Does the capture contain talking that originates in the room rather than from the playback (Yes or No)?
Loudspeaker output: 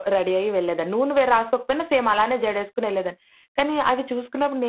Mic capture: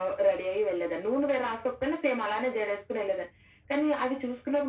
No